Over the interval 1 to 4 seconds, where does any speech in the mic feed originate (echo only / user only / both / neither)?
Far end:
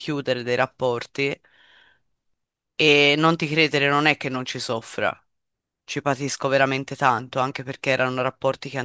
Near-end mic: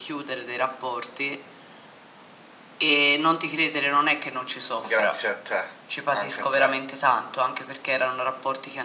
echo only